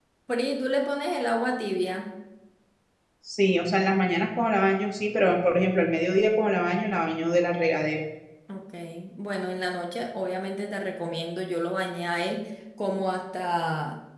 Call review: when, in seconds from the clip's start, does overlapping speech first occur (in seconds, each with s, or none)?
none